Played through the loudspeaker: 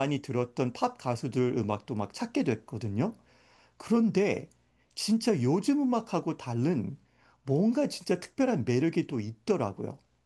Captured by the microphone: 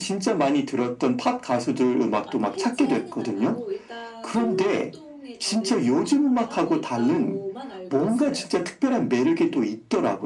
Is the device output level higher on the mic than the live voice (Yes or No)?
Yes